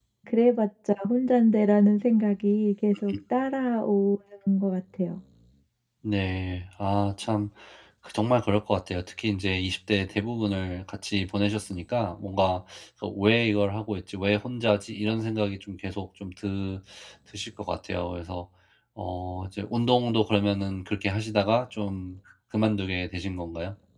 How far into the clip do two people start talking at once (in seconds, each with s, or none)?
none